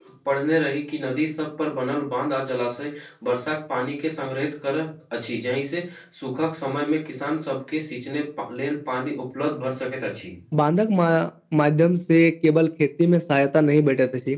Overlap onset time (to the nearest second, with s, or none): none